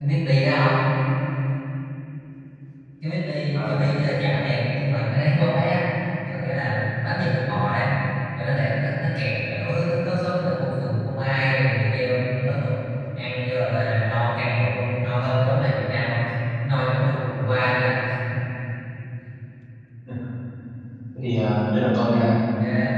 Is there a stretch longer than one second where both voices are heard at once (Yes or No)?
No